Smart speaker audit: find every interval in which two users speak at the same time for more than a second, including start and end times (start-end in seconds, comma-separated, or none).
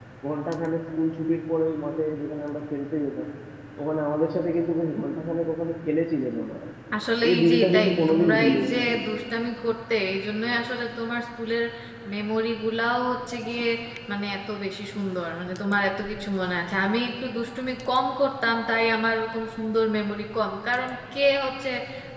7.2-9.0